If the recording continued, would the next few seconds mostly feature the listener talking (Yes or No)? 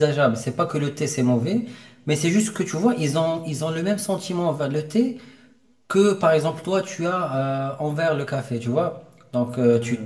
No